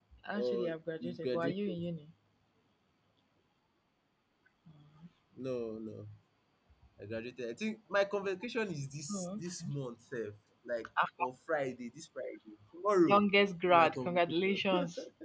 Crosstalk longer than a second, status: present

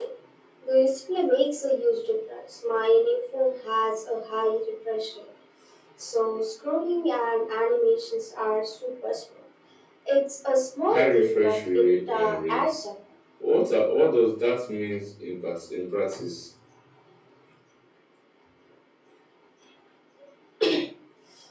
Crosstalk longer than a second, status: present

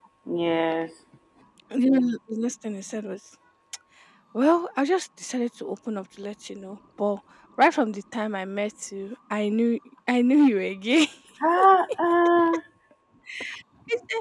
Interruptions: none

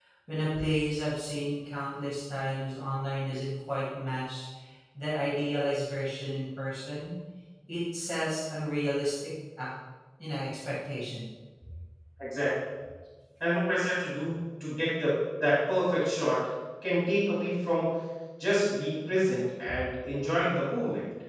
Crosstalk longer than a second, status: none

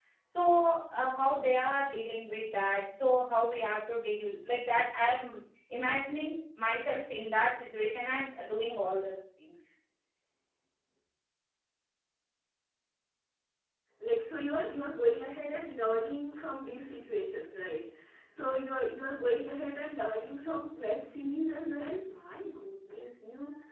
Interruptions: none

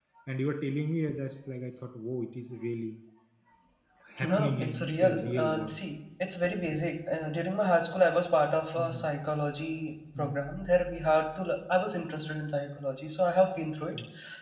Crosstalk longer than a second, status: present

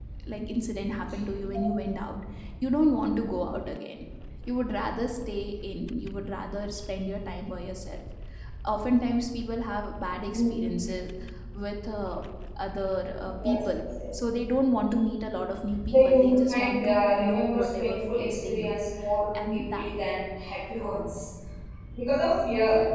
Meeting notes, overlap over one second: present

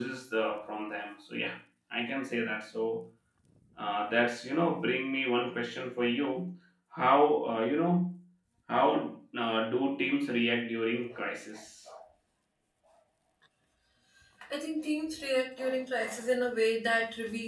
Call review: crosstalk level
none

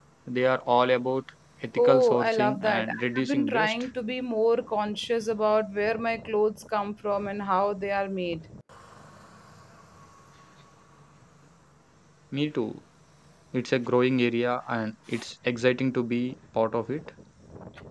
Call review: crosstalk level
present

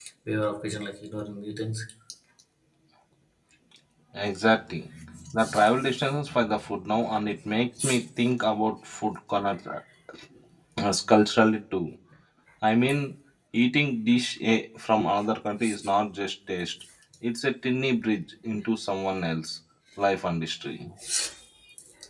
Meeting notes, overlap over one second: none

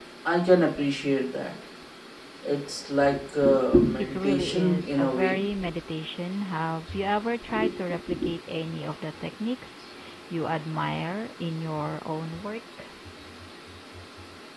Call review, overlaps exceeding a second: present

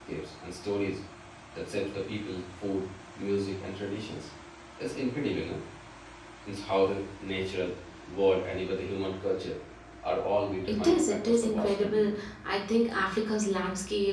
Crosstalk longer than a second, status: present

